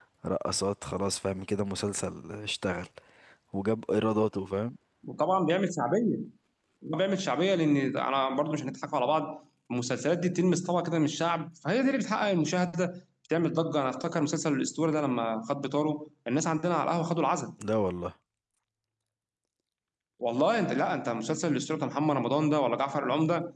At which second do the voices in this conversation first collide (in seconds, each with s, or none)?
none